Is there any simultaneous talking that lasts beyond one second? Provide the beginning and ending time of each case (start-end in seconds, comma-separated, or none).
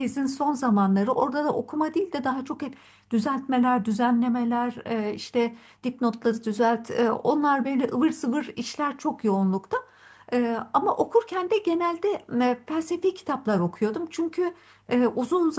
none